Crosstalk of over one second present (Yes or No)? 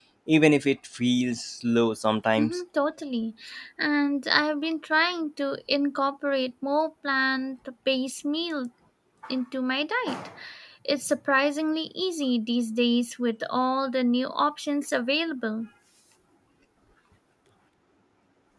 No